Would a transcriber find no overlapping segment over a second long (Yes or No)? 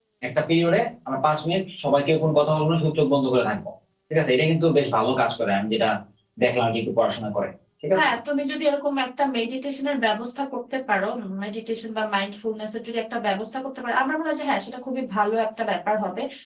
Yes